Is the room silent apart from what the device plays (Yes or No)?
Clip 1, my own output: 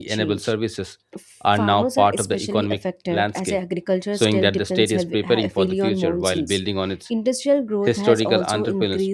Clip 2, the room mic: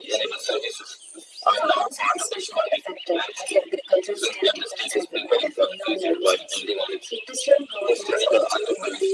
Yes